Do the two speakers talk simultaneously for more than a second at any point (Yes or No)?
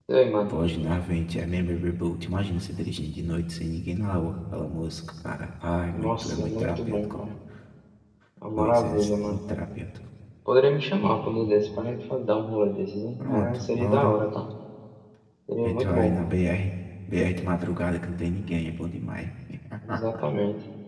Yes